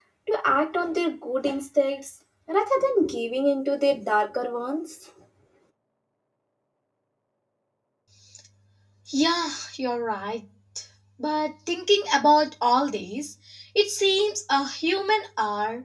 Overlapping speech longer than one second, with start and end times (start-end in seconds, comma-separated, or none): none